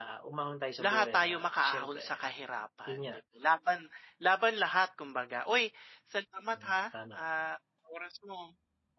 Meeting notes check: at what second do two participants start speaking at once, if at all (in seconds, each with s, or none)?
0.8 s